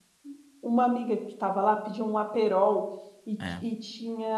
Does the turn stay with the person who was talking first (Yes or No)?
Yes